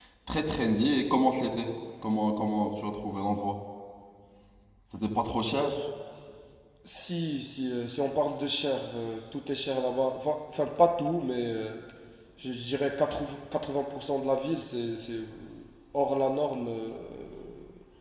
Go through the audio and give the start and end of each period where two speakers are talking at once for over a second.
none

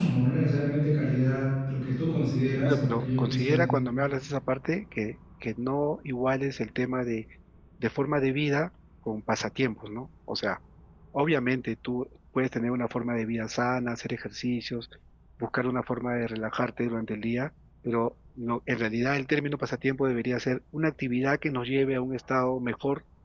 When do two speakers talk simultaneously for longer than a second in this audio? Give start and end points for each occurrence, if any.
2.6-3.9

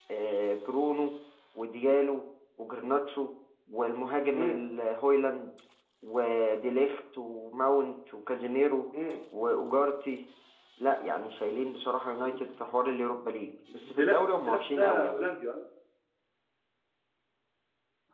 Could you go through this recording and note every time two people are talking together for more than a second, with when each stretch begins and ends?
13.8-15.2

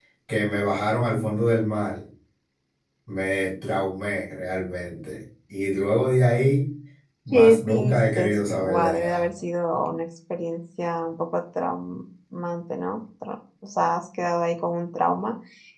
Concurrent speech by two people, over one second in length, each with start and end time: 7.3-9.3

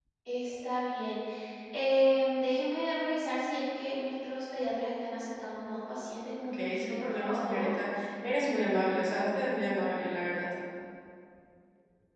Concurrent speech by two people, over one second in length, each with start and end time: 6.4-7.7

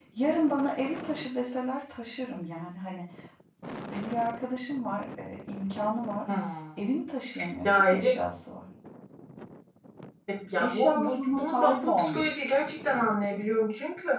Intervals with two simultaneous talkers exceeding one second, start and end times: 10.6-12.5

